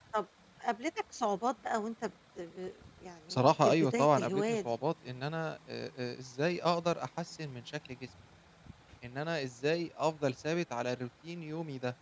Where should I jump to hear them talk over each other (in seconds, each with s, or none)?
3.3 s